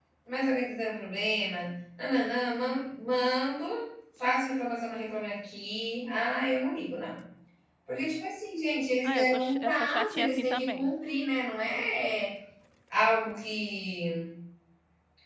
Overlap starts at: 9 s

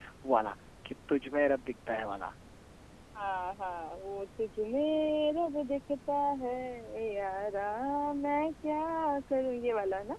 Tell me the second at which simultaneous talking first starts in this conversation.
none

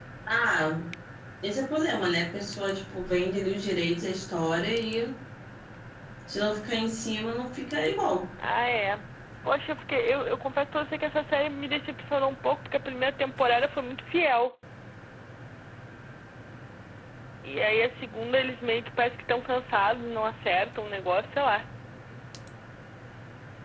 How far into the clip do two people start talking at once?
none

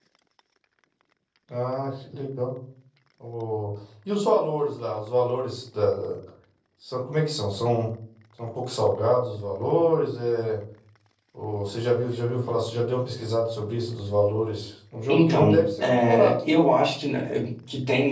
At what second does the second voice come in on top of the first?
15 s

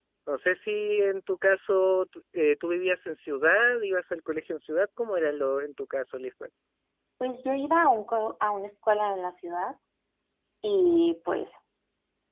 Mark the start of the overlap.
none

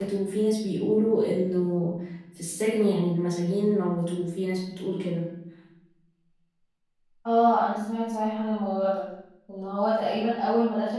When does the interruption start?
none

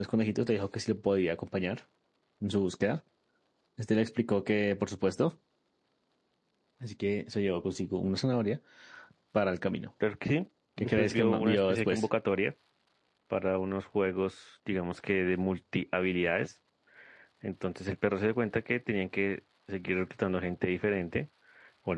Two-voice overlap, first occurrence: 11 s

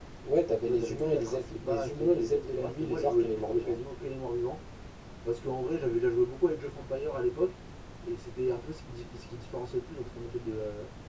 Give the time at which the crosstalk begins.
1 s

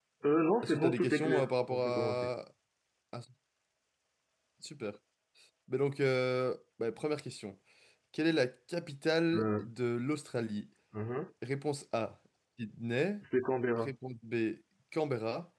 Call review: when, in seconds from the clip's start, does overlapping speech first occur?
1 s

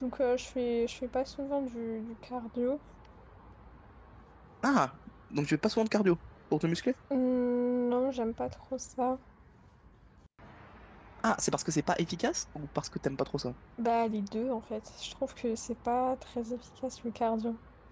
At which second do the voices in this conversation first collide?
none

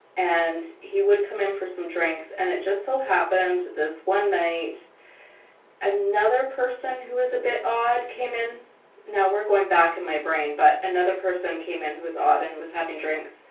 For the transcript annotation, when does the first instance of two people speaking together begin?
none

